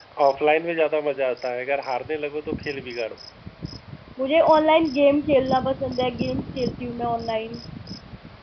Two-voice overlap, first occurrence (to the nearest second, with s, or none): none